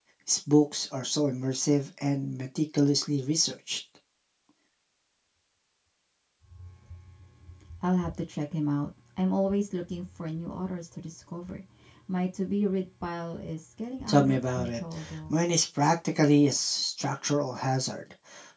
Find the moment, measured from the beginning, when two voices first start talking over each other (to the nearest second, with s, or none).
14 s